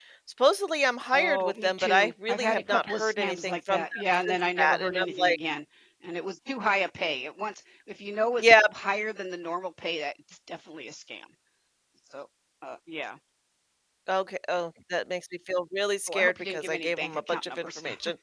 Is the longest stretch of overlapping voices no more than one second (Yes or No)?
No